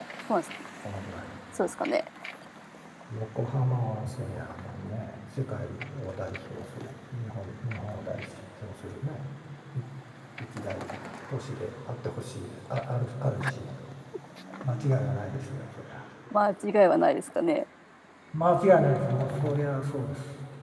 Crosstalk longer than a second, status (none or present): none